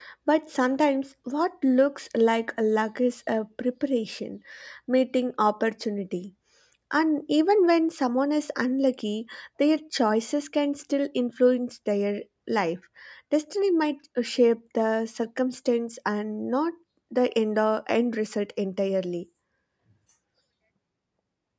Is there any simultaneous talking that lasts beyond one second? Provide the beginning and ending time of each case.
none

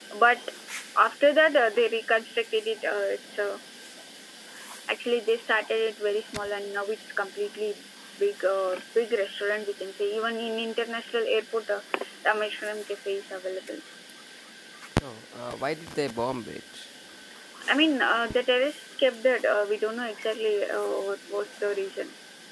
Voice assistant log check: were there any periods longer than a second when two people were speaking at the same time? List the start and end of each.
none

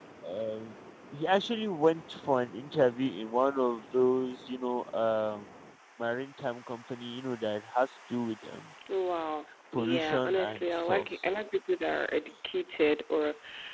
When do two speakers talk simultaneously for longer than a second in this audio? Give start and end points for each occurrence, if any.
9.7-11.1

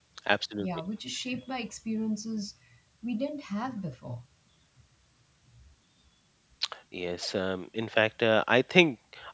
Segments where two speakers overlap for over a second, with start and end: none

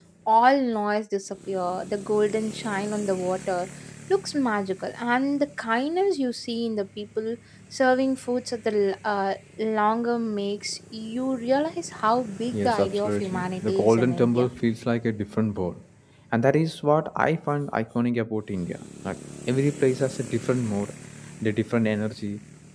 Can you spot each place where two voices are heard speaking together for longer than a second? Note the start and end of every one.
12.5-14.5

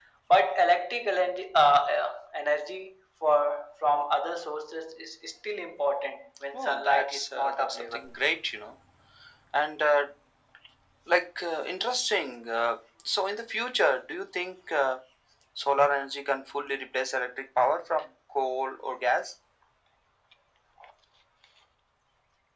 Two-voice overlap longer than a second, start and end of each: 6.5-8.0

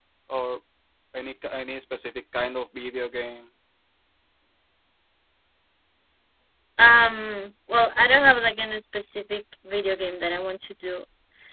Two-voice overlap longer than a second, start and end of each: none

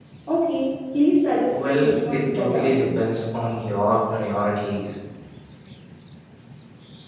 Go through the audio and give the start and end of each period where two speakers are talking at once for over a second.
1.5-2.7

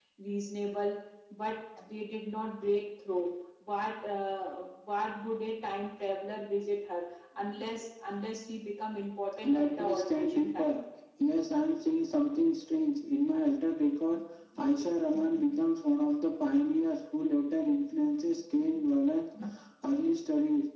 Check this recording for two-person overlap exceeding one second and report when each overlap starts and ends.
9.4-10.8

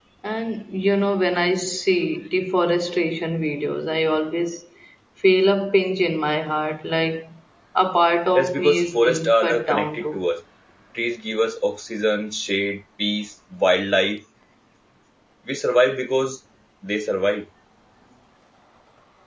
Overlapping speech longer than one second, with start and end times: 8.3-10.2

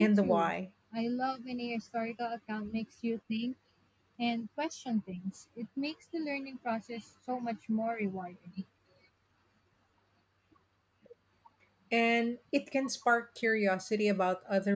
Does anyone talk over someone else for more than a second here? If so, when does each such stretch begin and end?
none

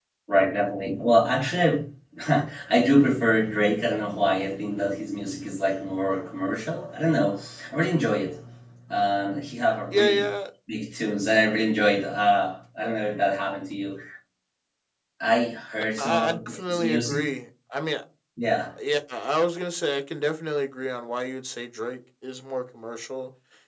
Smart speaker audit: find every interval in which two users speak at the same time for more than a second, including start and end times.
16.0-17.2

